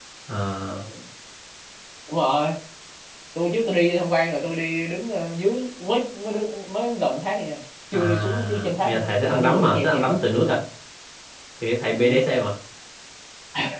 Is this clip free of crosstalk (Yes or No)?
No